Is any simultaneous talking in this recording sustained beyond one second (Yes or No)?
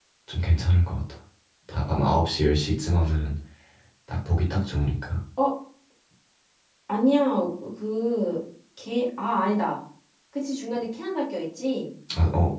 No